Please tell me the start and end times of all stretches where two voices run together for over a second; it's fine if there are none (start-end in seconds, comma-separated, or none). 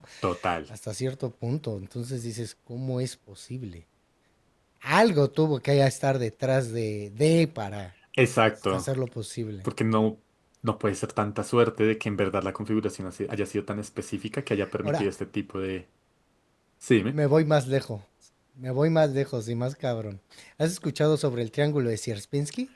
none